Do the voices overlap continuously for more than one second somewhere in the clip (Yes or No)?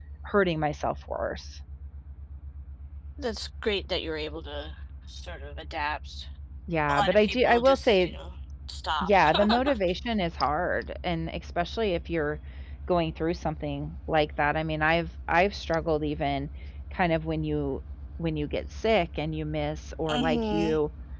Yes